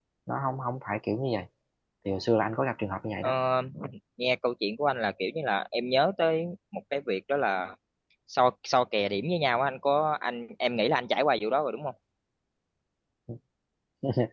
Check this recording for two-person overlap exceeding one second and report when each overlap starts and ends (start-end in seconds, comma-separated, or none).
none